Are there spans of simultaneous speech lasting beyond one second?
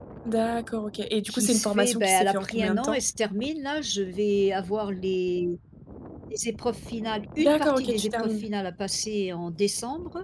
Yes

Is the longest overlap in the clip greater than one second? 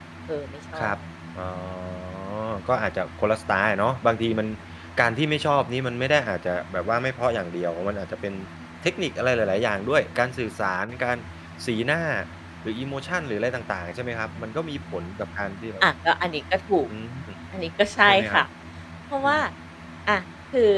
No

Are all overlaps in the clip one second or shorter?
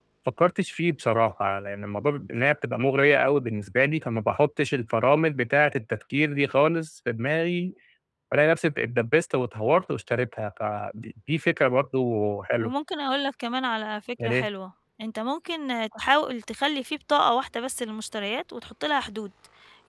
Yes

